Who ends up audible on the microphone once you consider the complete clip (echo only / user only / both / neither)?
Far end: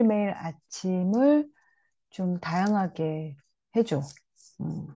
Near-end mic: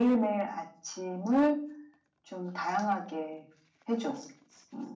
echo only